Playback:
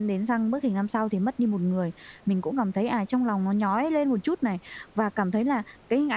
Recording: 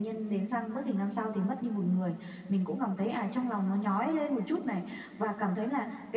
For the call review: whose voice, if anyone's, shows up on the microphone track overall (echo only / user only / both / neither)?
echo only